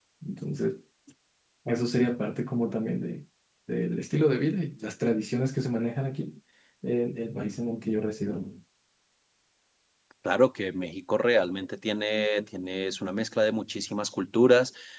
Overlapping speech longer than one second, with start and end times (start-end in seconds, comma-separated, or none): none